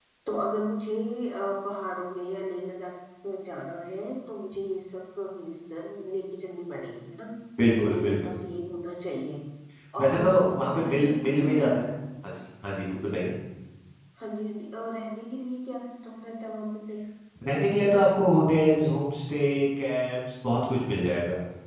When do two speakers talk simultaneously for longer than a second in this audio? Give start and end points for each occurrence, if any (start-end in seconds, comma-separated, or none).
10.0-11.8